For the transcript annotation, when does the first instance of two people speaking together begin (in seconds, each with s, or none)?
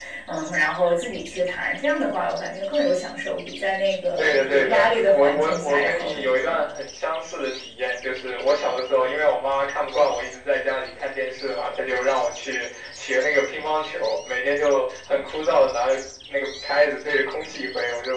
4.2 s